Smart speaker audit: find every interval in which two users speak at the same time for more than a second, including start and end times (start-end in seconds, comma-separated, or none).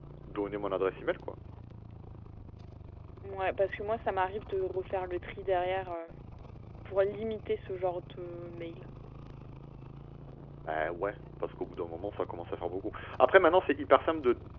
none